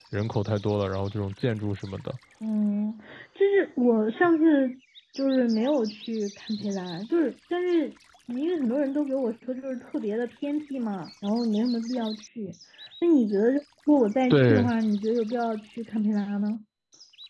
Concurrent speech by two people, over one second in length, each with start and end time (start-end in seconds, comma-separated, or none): none